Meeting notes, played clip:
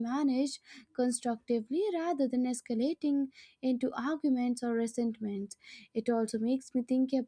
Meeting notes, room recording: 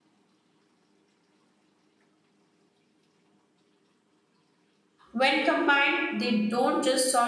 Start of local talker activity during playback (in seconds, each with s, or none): 5.1 s